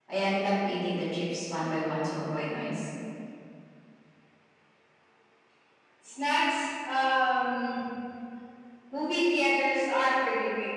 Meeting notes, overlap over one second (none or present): none